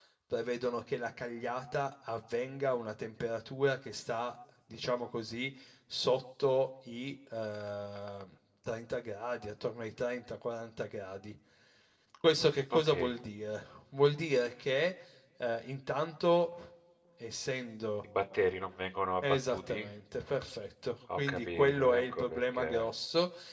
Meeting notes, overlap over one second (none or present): present